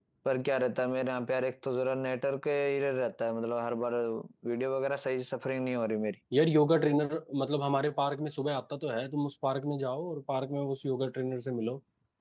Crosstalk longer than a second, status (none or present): none